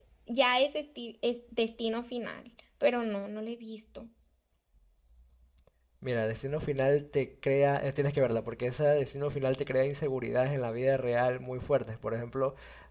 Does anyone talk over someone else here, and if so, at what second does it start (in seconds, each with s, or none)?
none